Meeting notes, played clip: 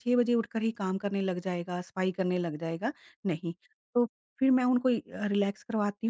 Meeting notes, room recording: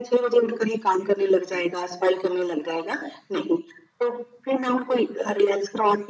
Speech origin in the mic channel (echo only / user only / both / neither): echo only